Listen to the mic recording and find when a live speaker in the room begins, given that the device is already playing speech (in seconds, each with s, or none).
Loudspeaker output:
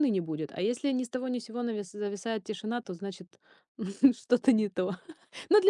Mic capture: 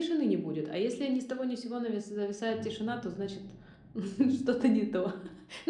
none